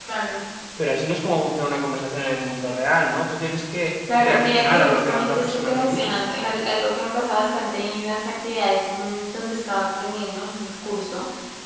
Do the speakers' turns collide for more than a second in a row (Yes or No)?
Yes